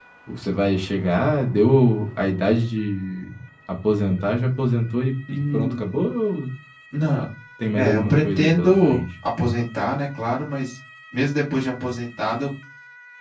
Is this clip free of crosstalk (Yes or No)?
No